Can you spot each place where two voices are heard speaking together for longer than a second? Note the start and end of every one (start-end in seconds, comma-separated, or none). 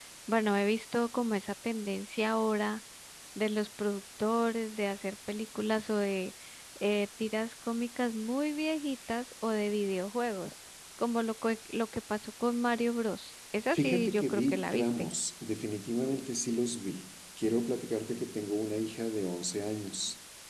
13.7-15.1